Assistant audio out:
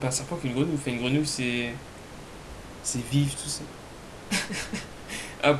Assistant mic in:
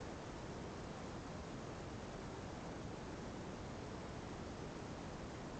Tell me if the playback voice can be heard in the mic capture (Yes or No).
No